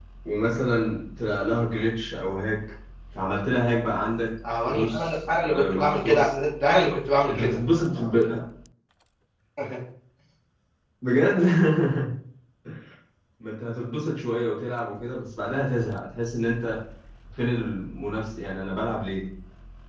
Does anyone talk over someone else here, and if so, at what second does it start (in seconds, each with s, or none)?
4.7 s